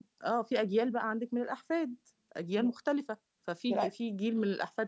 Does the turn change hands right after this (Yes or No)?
No